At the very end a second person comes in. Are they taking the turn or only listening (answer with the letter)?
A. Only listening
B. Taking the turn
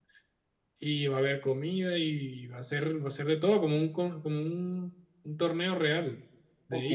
B